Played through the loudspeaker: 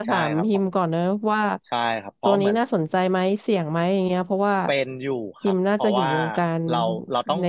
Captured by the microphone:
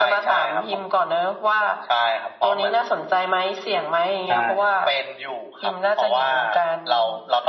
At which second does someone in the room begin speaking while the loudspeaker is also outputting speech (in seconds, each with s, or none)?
4.2 s